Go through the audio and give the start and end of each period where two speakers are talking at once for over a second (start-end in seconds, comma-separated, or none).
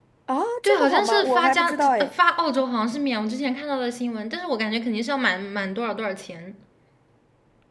0.6-2.1